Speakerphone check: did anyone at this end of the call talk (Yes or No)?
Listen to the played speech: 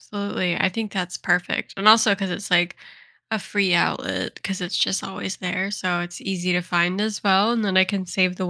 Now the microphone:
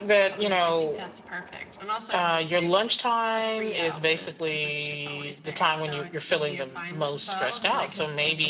Yes